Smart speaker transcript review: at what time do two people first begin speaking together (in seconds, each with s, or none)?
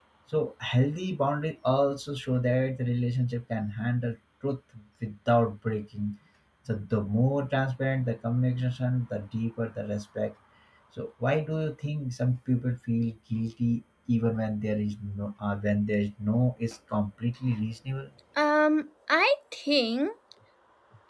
none